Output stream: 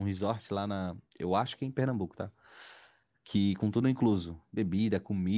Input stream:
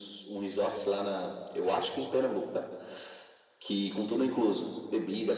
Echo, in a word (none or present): present